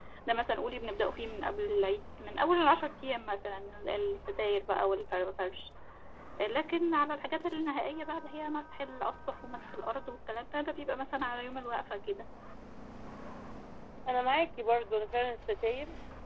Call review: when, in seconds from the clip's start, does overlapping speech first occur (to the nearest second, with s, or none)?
none